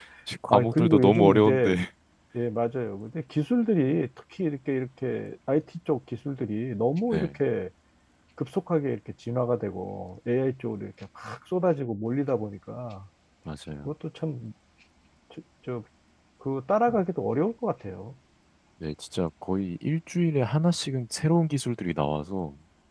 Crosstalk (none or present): present